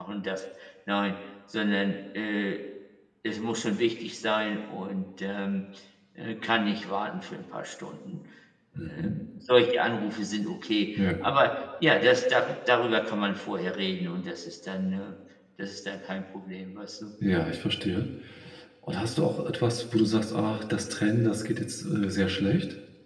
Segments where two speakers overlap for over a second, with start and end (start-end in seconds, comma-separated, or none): none